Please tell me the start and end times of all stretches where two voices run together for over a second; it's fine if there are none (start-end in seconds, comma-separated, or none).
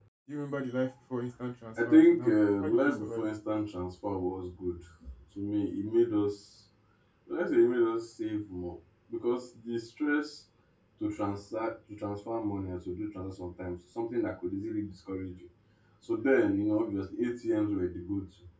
1.9-3.3